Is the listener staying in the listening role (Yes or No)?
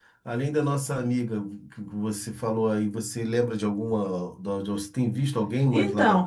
No